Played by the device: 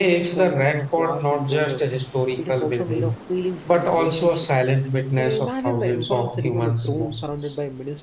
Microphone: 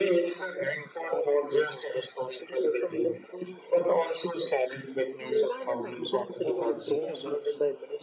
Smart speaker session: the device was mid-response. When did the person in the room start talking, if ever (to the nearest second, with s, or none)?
6 s